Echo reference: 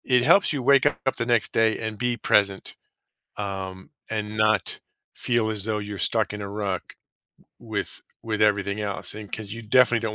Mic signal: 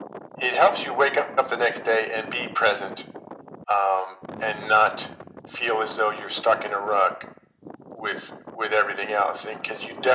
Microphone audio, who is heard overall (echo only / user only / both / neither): echo only